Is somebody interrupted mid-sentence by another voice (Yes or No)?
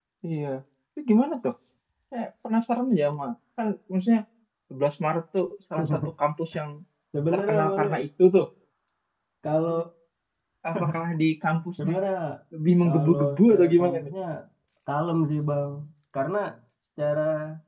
Yes